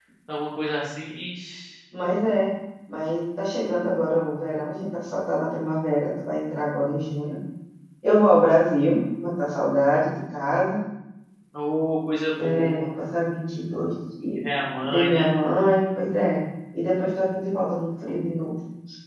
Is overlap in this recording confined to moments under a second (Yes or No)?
Yes